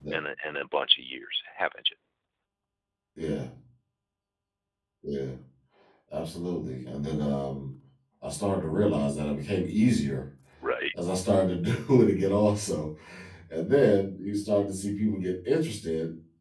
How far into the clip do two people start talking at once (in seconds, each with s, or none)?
none